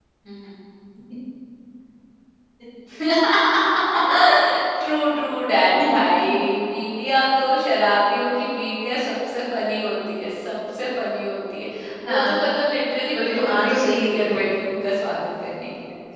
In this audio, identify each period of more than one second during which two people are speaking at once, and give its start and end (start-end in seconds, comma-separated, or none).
13.0-14.4